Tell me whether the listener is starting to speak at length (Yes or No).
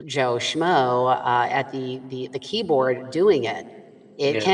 No